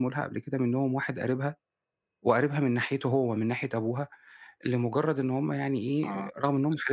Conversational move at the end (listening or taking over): listening